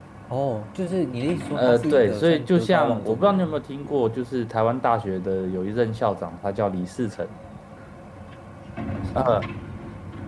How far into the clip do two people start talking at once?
2 s

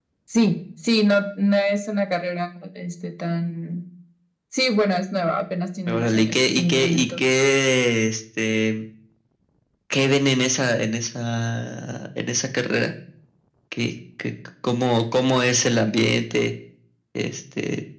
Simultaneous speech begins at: 6 s

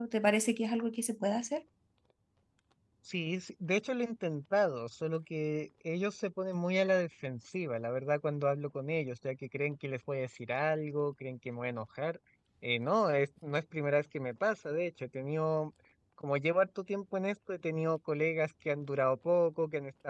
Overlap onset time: none

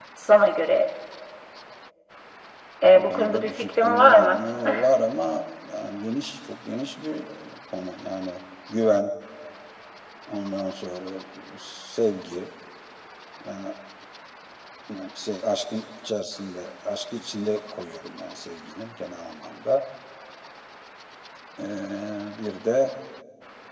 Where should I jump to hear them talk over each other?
3 s

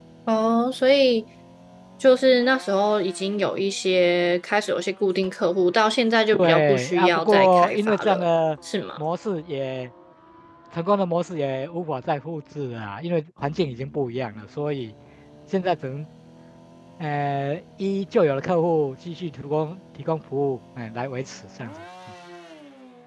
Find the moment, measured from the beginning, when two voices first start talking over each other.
6 s

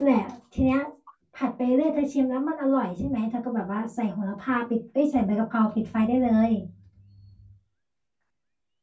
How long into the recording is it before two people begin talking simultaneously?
none

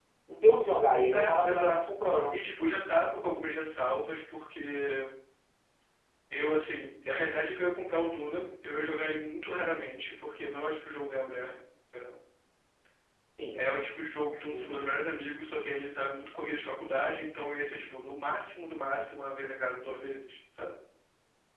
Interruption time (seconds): 1 s

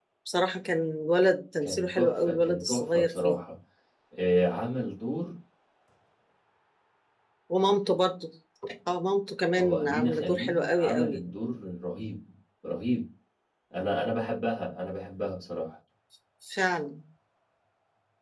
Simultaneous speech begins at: 2 s

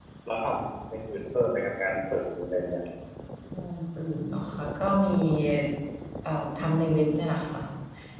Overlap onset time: none

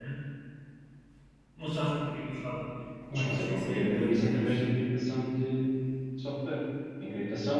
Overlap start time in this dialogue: 3 s

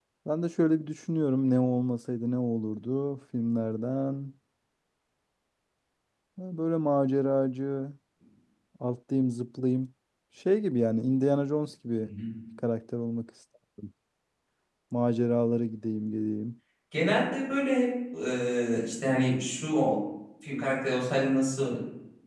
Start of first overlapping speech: none

